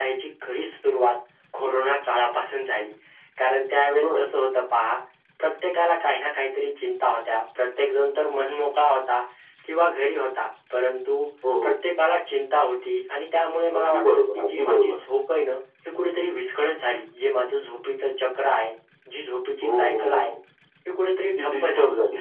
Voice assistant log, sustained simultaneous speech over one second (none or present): present